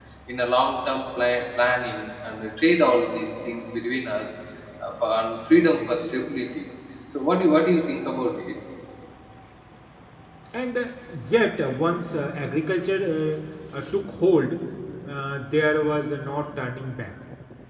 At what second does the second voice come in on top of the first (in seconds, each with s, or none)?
none